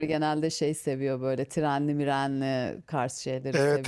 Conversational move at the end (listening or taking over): taking over